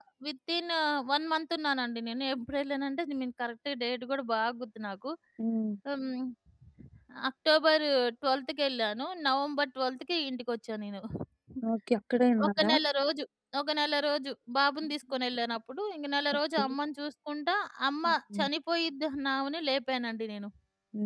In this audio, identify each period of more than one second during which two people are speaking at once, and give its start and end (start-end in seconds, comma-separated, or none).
none